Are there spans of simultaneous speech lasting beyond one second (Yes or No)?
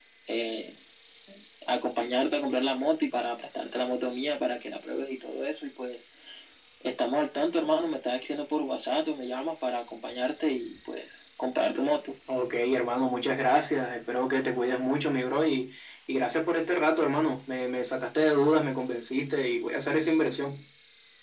No